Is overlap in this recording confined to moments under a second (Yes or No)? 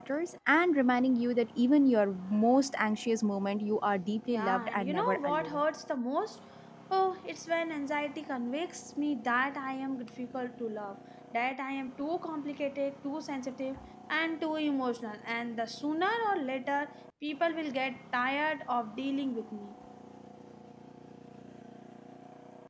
No